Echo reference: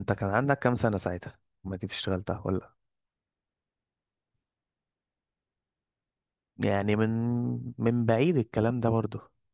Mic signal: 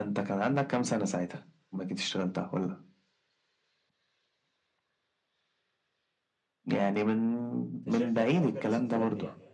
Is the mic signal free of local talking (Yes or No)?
No